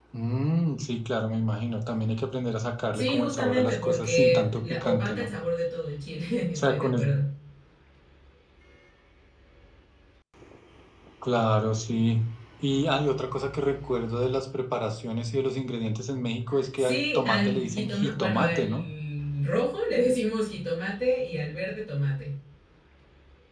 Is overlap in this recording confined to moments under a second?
No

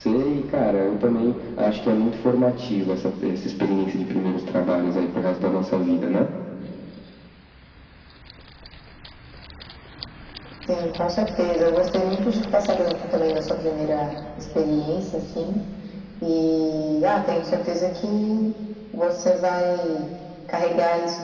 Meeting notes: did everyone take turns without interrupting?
Yes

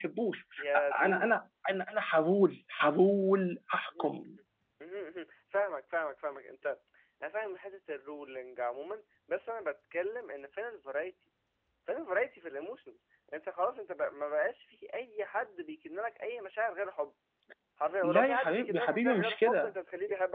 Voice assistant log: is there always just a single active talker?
No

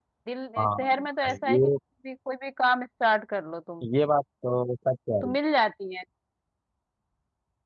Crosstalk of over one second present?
No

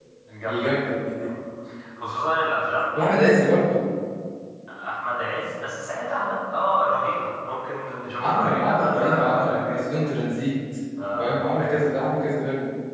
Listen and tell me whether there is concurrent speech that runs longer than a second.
Yes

